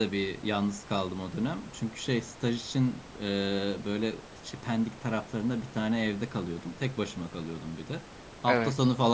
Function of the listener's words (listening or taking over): listening